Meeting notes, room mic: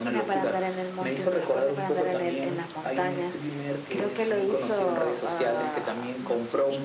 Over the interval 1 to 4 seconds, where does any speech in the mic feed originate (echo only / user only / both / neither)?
echo only